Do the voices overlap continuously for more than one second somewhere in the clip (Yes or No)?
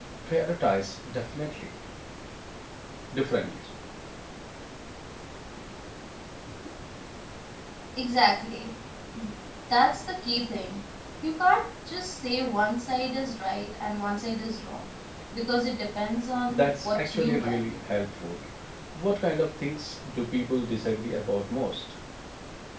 Yes